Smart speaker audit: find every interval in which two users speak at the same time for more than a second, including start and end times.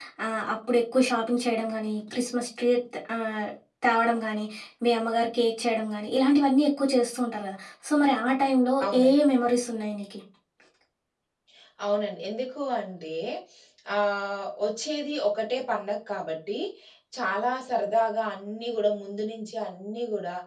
none

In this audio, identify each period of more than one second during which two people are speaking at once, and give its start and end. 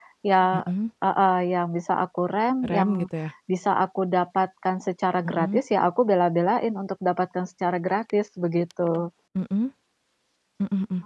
none

